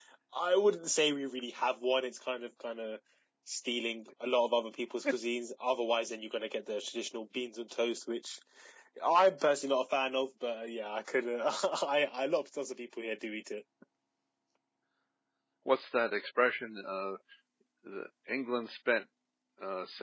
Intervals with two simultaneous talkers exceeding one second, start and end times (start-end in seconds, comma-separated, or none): none